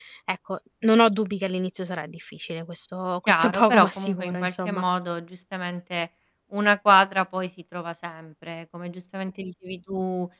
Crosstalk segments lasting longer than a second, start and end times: 3.3-4.8

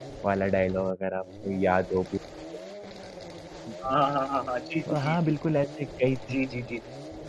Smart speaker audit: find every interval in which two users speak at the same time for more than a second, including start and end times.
none

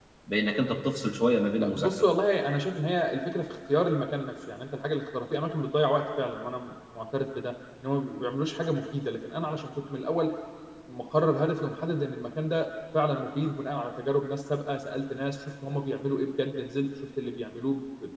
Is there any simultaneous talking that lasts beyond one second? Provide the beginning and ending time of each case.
none

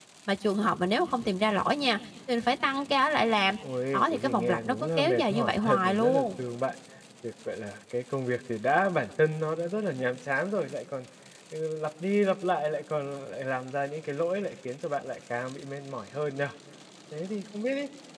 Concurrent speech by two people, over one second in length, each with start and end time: 3.9-6.3

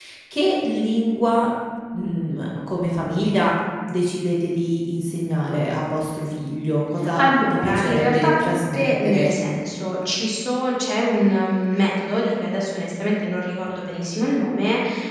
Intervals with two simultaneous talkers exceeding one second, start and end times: 7.2-9.3

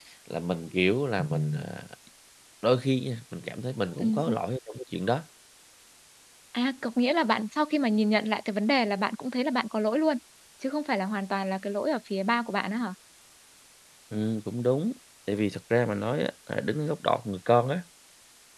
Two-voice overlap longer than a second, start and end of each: none

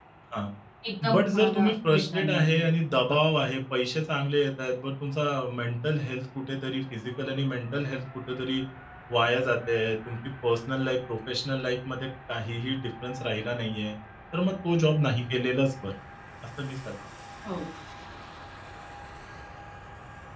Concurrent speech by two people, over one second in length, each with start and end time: 1.1-2.7

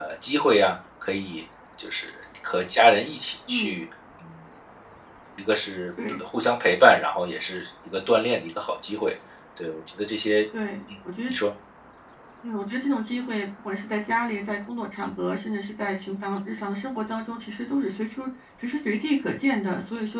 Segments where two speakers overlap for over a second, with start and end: none

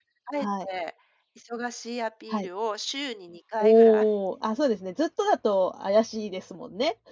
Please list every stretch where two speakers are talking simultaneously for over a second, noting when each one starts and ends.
none

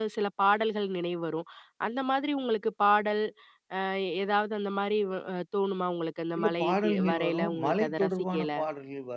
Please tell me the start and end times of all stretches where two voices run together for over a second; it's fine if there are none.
6.4-8.5

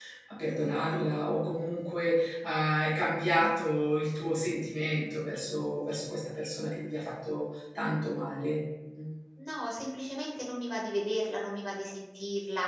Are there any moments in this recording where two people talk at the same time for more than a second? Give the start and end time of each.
none

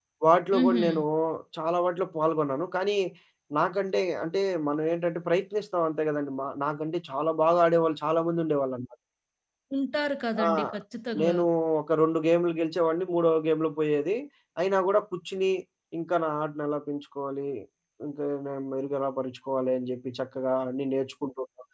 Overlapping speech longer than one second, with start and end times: none

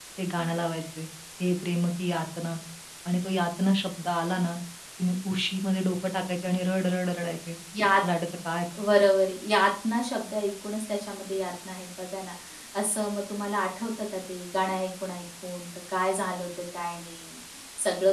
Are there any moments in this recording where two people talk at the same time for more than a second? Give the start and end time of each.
none

